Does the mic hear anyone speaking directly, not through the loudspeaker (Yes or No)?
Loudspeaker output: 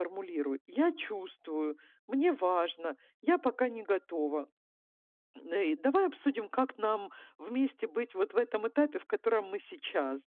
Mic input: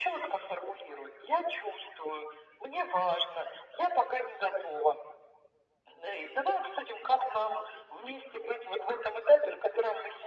No